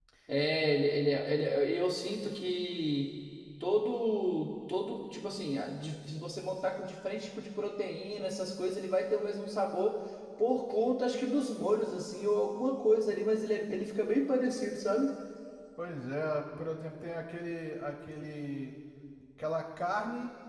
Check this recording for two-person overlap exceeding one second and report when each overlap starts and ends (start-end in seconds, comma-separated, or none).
none